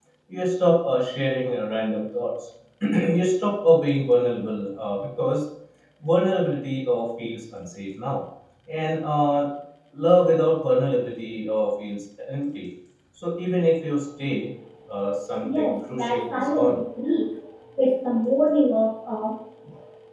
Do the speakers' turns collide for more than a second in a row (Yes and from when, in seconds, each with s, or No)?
Yes, from 15.4 s